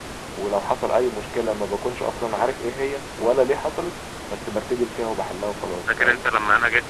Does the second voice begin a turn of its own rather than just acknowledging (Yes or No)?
Yes